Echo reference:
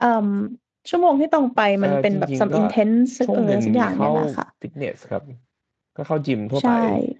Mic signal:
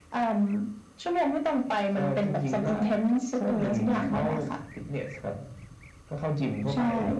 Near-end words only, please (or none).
none